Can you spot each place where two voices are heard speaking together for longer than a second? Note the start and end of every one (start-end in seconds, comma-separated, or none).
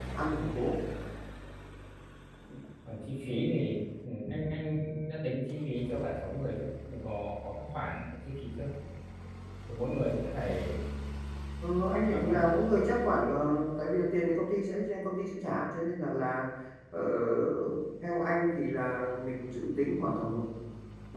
none